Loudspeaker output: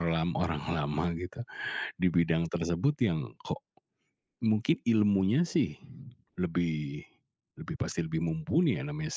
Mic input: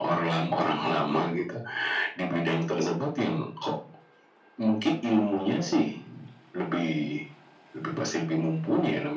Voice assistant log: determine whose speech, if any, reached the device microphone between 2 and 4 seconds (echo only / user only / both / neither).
echo only